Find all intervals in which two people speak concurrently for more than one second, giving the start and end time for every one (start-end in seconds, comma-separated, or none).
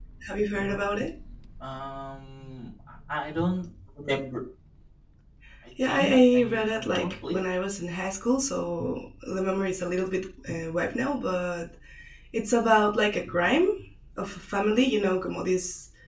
5.9-7.3